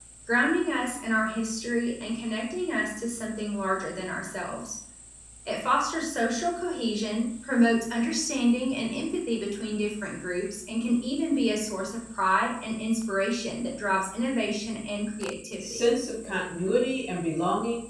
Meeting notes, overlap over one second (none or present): none